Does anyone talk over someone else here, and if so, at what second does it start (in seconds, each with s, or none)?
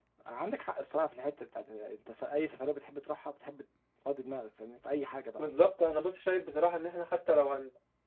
none